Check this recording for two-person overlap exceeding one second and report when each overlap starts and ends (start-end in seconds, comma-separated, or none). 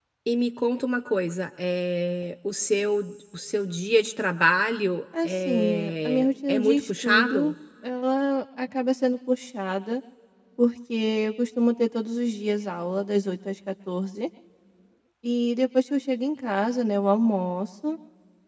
5.2-7.5